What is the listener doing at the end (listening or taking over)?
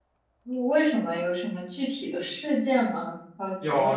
taking over